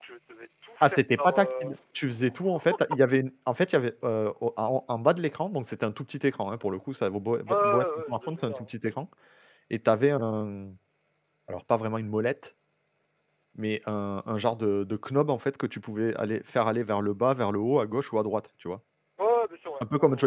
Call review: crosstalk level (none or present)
present